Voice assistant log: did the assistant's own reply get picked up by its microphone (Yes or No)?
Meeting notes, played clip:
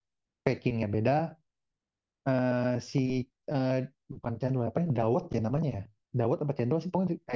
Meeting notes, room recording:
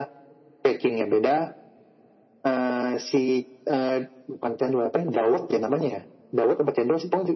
Yes